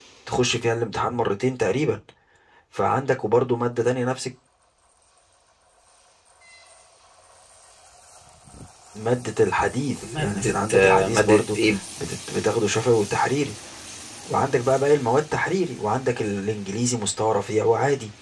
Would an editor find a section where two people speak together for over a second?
Yes, from 10.0 s

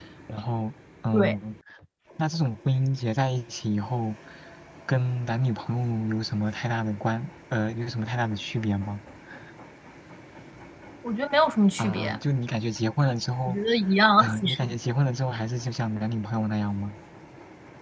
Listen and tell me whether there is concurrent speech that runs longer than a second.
No

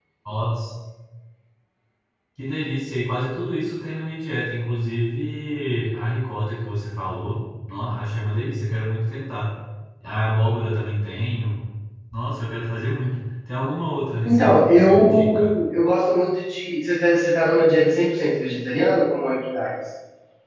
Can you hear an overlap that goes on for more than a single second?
Yes, from 14.2 s

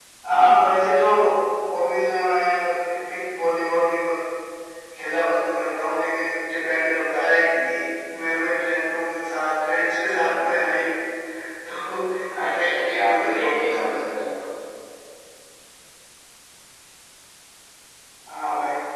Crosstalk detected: Yes, from 12.4 s

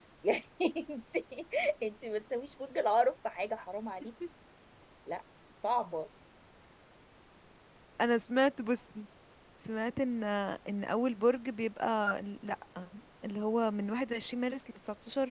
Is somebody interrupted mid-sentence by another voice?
No

